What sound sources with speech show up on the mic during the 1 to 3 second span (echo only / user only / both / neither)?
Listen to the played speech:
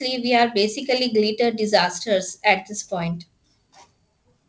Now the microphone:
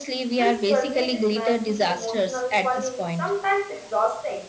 both